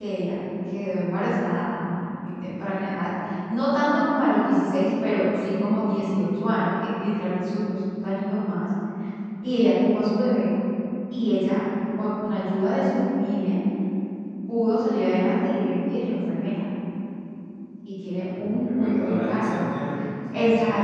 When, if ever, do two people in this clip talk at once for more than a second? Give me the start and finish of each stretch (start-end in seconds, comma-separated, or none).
18.2-19.6